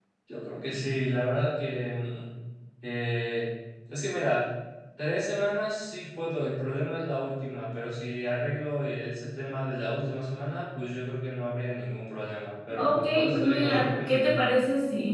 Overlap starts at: 13 s

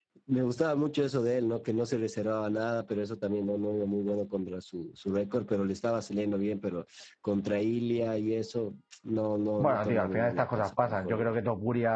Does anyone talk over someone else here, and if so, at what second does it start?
10 s

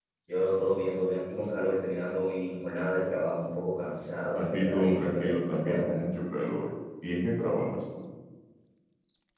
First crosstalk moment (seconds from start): 4 s

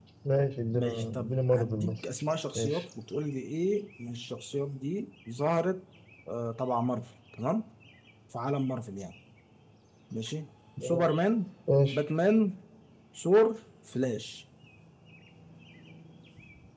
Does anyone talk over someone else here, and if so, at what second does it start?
1 s

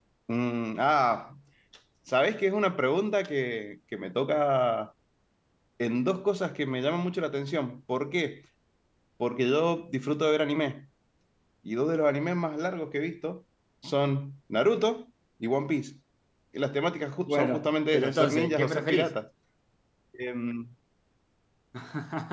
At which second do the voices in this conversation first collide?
17 s

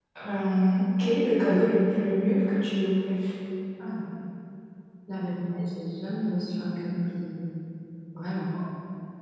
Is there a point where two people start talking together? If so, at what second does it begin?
none

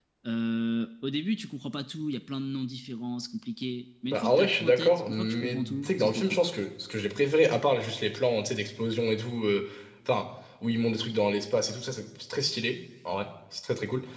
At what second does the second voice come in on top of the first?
4 s

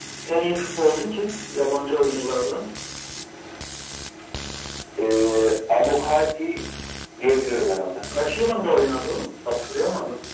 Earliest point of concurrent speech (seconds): none

